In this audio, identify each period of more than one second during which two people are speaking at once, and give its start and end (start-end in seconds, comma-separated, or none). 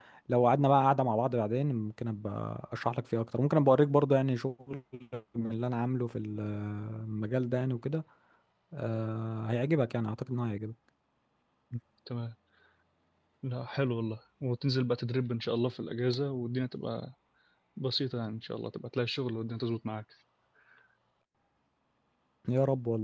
none